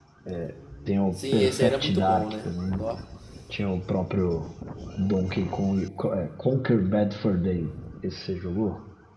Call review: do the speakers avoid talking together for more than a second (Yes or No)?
No